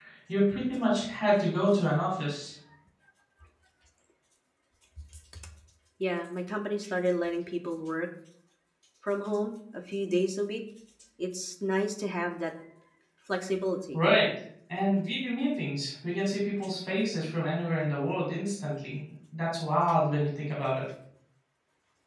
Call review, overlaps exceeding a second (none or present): none